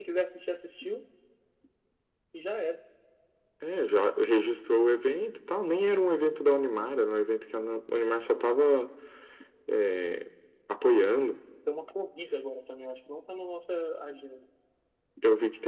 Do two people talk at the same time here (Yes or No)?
No